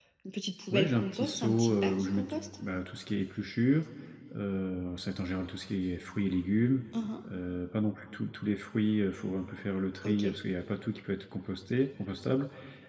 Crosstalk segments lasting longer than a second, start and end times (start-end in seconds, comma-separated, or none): 0.7-2.4